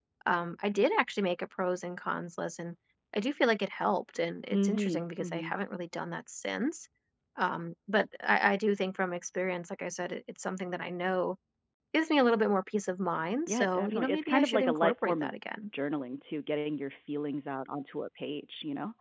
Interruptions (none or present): present